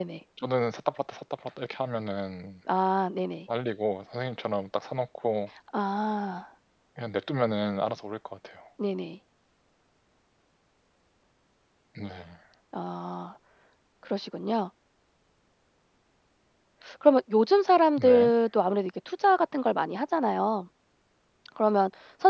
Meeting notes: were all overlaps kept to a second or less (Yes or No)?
Yes